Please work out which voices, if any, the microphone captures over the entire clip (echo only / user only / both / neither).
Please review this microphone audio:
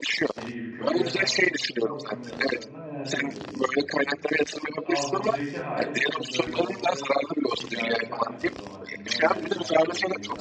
both